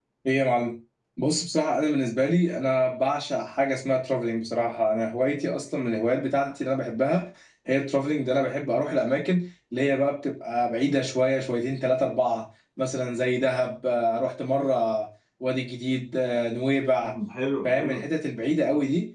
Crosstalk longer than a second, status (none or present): none